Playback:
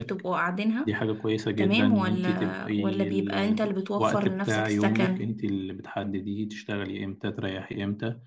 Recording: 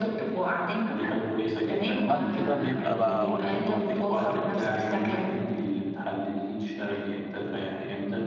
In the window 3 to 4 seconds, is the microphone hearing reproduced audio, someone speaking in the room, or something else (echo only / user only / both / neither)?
both